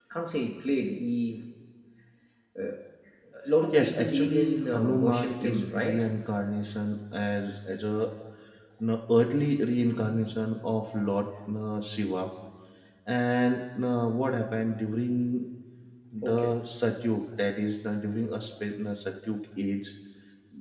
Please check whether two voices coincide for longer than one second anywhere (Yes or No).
Yes